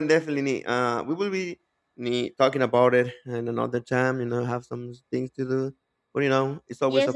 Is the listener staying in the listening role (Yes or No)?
No